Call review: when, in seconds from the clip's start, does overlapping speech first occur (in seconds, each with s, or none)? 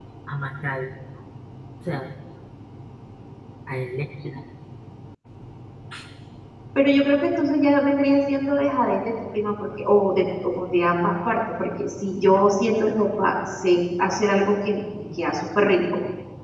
none